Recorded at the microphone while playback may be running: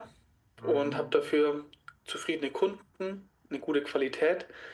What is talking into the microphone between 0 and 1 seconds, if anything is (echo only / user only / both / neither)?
both